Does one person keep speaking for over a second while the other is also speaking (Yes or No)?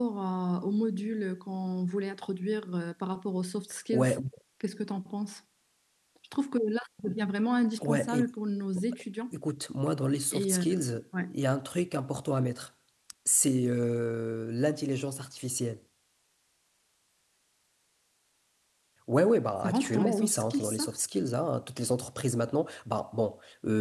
Yes